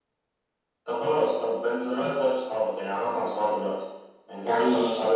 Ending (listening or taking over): listening